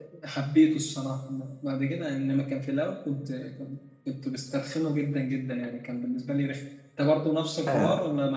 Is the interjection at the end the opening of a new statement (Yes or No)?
Yes